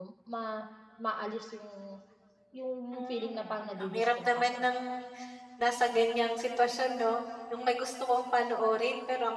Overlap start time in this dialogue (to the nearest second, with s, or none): 3 s